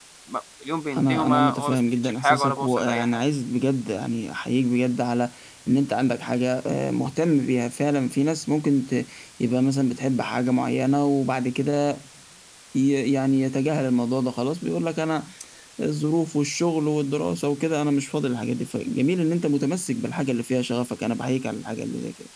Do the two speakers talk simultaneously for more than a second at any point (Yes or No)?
Yes